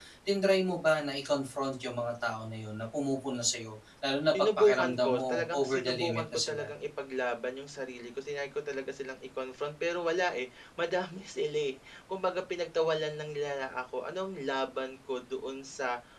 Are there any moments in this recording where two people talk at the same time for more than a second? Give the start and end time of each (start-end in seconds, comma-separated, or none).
4.6-6.6